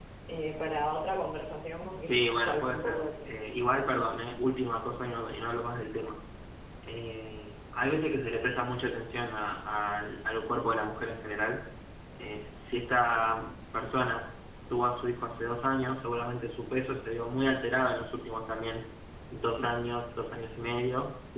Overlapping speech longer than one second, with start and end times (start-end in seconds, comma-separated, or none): 2.0-3.4